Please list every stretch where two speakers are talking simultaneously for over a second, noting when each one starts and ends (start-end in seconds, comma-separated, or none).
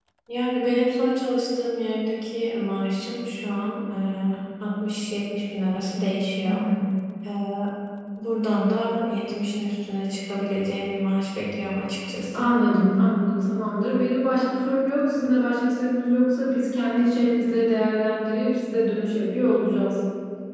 none